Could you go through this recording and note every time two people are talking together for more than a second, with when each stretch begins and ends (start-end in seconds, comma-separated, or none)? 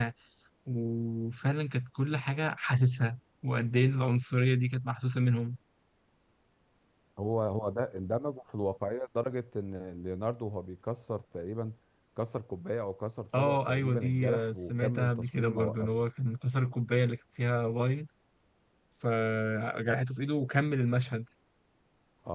13.4-15.9